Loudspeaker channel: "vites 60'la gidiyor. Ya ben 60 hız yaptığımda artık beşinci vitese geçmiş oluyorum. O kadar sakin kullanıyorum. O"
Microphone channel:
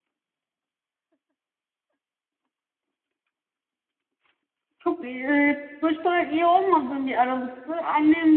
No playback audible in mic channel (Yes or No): Yes